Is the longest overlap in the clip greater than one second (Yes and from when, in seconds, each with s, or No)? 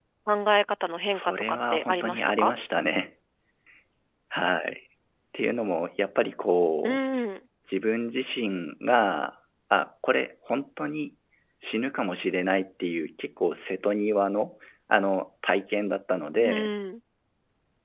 Yes, from 1.1 s